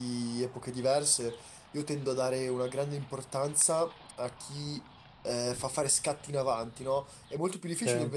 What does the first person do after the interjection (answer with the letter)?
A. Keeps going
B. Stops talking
A